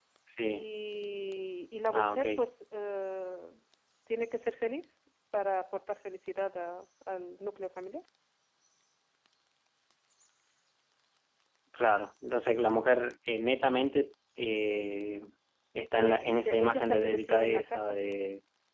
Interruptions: present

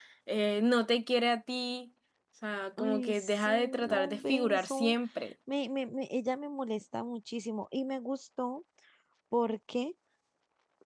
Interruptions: present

